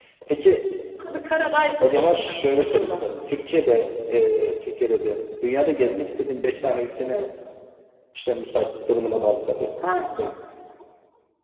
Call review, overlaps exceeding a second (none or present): present